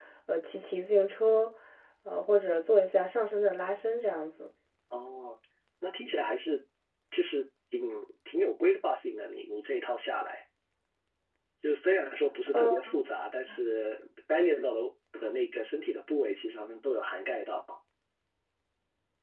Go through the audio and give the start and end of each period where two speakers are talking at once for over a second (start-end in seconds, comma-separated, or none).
none